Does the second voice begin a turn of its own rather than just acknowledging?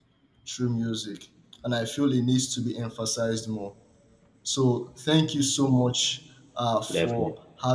No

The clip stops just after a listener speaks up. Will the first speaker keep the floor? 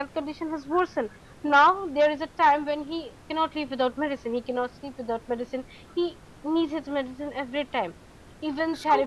Yes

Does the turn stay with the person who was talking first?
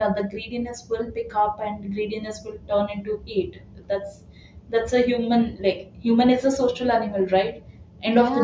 Yes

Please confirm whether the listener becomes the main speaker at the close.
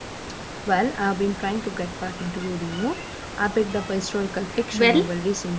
No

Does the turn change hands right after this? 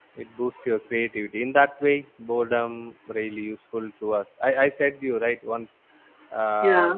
No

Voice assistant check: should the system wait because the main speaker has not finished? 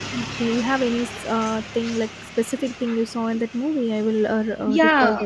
No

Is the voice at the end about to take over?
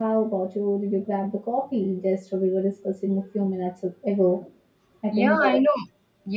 Yes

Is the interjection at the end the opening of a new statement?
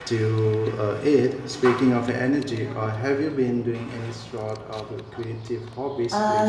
Yes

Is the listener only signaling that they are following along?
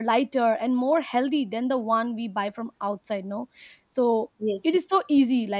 Yes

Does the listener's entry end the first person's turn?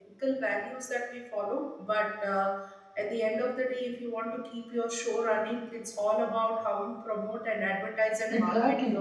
Yes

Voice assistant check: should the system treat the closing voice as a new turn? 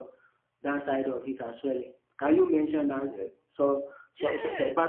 Yes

